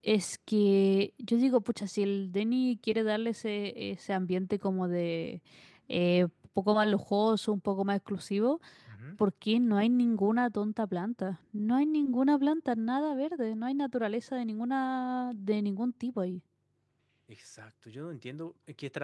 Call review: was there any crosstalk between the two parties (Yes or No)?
No